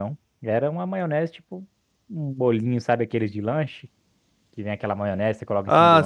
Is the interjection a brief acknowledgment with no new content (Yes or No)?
No